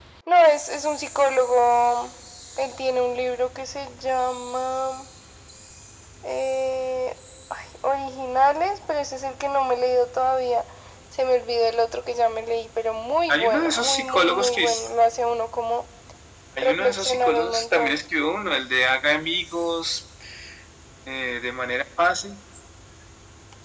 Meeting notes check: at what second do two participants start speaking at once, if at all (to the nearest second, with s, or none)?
13 s